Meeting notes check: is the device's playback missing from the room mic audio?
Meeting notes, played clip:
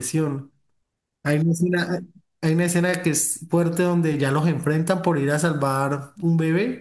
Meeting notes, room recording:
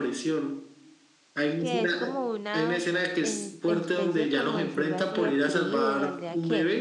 No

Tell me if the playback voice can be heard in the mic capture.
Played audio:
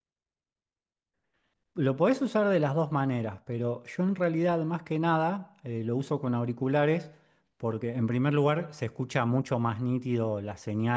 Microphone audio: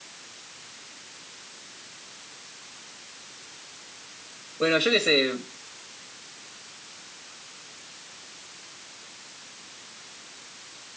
No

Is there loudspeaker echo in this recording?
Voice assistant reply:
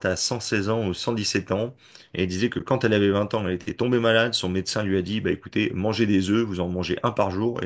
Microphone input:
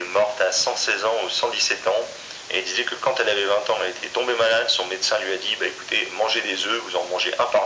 Yes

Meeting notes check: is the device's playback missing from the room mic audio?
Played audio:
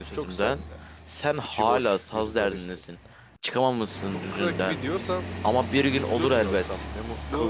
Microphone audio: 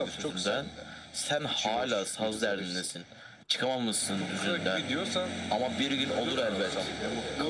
No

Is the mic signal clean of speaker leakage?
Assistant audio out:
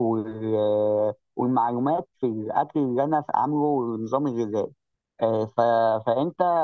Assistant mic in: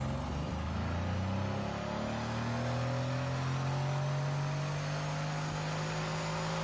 Yes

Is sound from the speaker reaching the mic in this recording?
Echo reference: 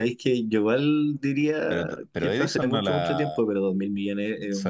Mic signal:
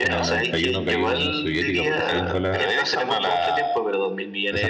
Yes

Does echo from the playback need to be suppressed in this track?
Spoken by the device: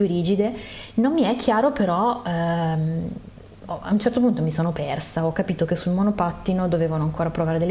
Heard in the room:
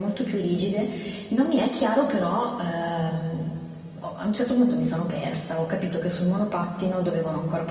Yes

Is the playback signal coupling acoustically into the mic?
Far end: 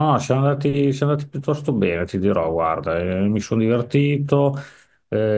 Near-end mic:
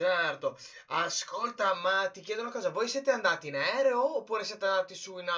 No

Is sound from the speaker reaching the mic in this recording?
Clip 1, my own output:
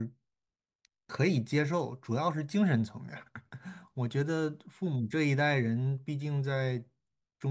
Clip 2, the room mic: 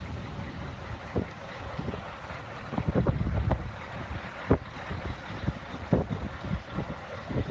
No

